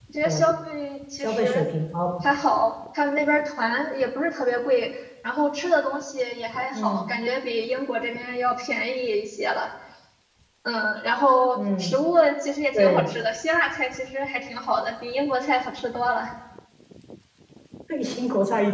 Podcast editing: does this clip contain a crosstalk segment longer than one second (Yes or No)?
No